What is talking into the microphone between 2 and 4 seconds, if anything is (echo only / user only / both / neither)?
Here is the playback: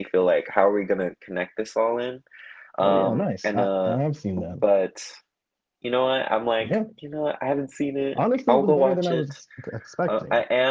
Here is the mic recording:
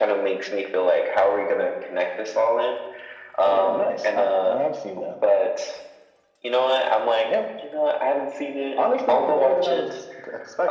echo only